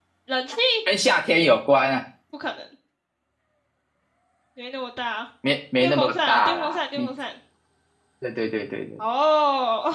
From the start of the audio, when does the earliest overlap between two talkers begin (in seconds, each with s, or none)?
5.8 s